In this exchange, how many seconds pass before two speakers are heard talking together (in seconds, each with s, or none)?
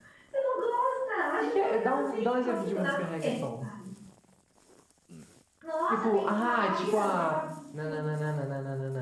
1.4 s